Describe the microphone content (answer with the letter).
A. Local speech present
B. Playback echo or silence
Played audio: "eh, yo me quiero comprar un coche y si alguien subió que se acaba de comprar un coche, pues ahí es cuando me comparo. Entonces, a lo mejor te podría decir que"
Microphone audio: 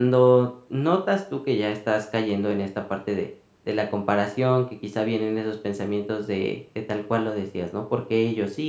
A